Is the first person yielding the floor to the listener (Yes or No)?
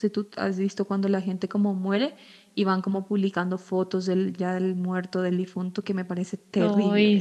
Yes